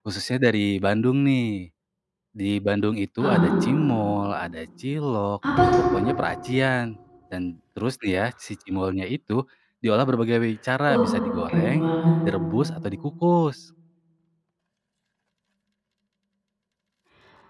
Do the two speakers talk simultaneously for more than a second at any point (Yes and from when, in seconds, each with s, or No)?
No